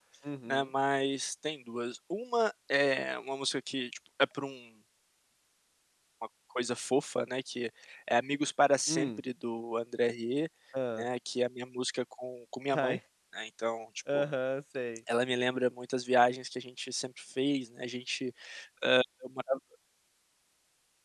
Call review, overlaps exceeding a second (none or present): none